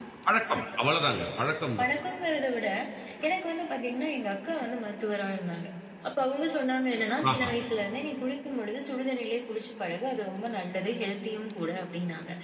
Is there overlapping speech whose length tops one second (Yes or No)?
No